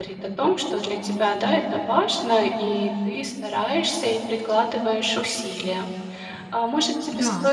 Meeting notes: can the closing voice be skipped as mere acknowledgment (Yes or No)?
Yes